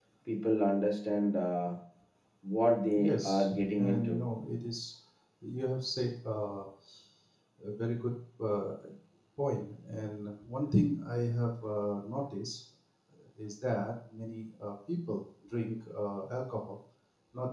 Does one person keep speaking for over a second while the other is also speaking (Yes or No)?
Yes